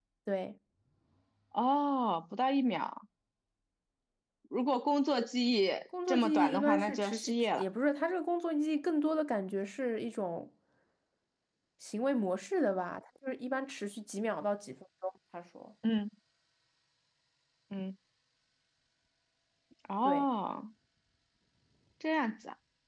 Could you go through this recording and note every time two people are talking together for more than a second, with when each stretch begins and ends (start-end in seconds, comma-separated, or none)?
6.1-7.7